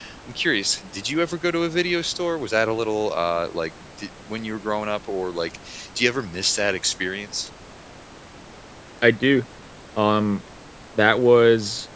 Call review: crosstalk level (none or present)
none